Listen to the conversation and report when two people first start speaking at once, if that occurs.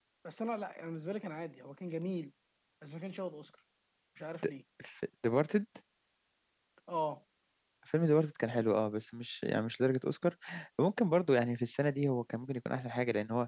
none

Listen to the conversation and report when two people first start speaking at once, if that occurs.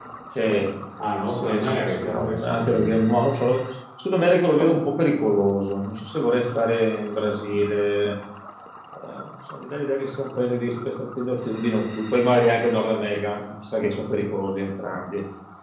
1.3 s

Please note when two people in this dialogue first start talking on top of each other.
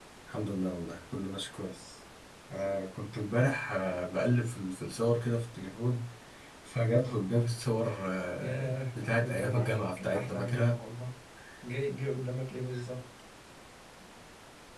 8.4 s

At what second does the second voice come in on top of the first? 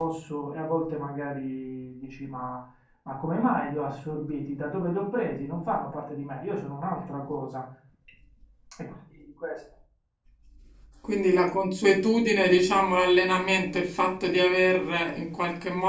none

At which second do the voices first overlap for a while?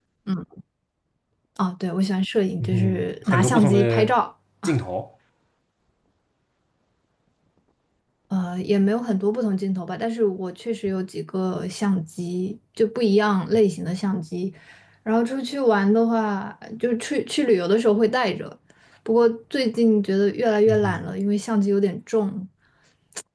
2.6 s

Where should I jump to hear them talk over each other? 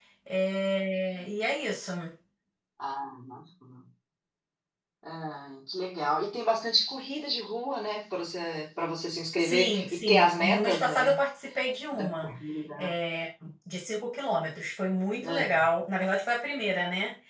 9.4 s

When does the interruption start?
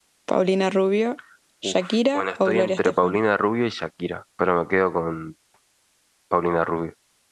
1.6 s

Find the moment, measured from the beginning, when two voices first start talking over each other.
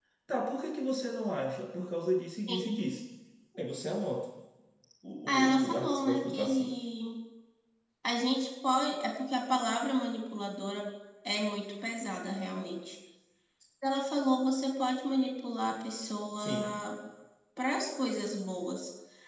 5.3 s

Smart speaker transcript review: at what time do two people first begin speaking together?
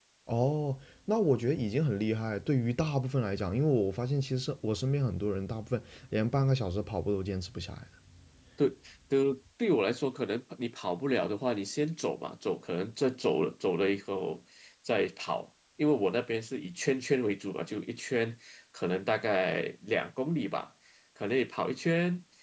none

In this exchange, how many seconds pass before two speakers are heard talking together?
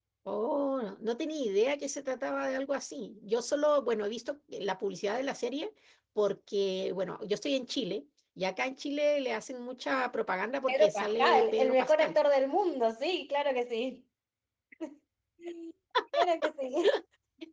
10.7 s

